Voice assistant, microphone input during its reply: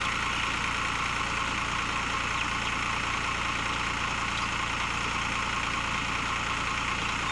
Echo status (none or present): none